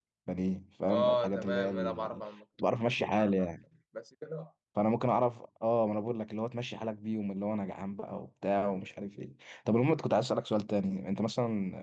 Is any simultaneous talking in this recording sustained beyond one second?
Yes, from 0.9 s

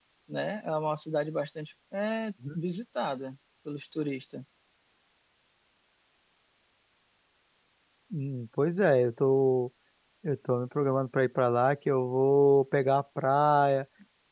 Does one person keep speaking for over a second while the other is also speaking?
No

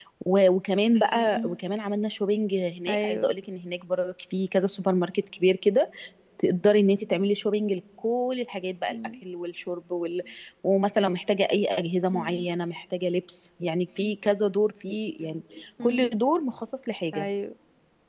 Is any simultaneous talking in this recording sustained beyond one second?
No

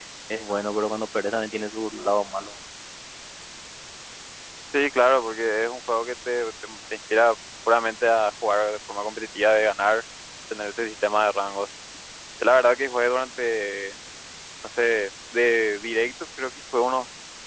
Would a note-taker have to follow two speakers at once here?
No

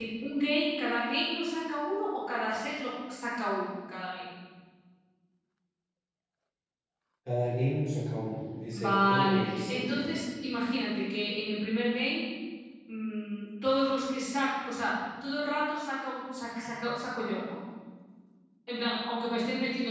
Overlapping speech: Yes, from 8.7 s

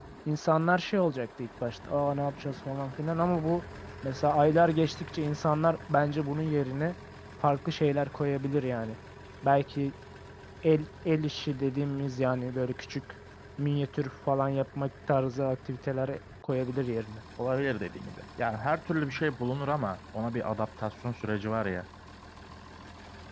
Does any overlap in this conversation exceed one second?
No

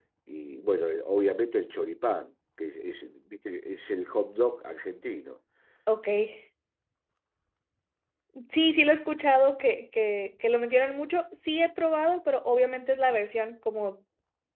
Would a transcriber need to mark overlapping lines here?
No

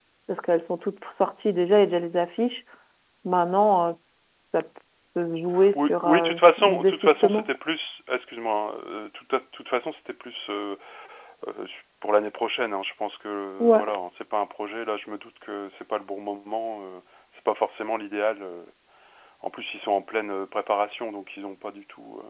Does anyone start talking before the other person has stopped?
Yes, from 5.8 s

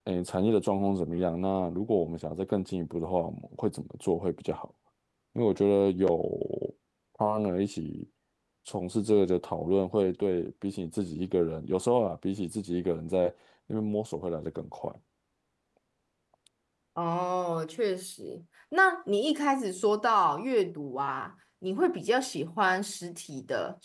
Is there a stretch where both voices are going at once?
No

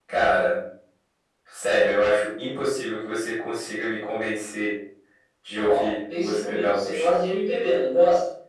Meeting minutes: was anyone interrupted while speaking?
Yes, from 5.6 s

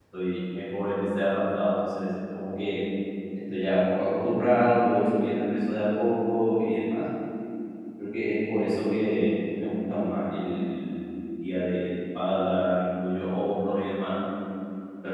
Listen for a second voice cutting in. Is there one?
No

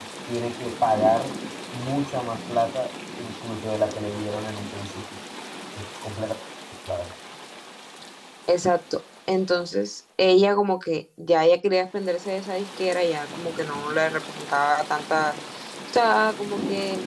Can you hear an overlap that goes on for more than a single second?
No

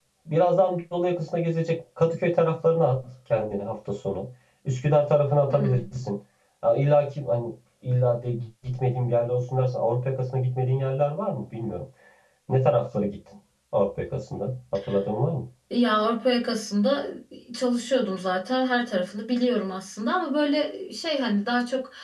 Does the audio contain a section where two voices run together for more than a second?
No

